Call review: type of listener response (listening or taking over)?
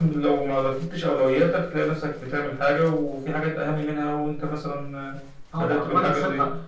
taking over